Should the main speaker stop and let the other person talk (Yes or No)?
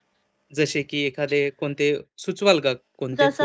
Yes